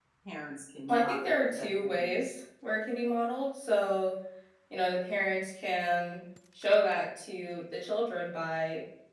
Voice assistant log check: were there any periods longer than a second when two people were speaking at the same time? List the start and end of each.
0.9-2.3

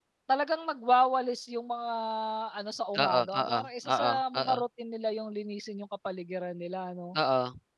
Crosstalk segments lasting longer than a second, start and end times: 3.0-4.6

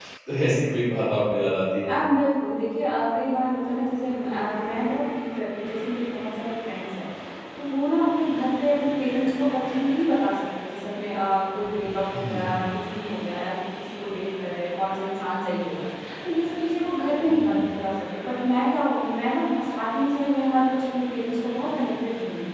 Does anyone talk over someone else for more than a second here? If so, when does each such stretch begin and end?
none

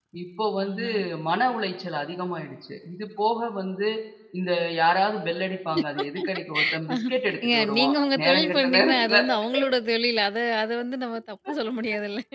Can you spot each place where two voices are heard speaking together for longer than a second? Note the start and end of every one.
7.5-9.2

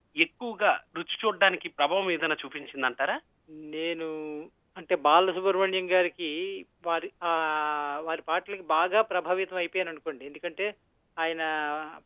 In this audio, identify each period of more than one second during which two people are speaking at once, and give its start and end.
none

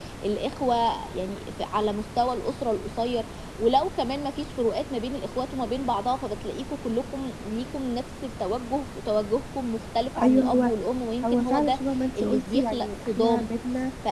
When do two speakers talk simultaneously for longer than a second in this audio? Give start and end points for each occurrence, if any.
12.2-13.5

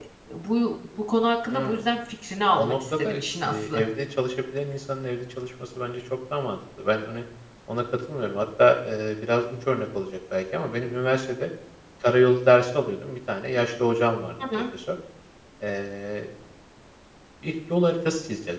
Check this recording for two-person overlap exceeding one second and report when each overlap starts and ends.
2.5-3.8

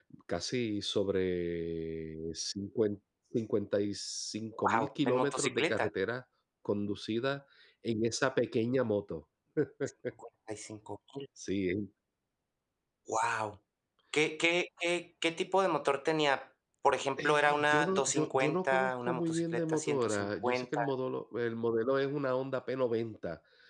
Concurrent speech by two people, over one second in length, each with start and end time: 4.6-5.9, 17.2-20.8

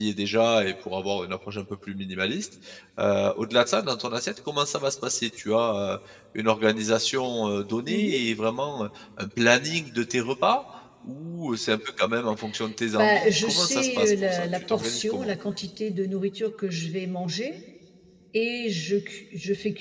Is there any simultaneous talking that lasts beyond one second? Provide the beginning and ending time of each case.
13.0-15.3

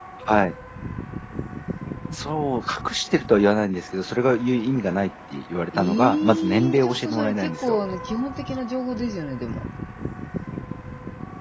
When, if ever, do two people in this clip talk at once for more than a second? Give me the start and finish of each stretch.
5.7-7.8

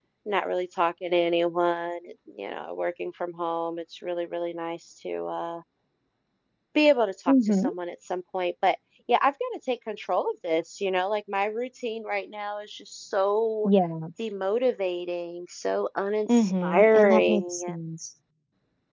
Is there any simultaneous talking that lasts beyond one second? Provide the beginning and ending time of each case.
16.3-17.8

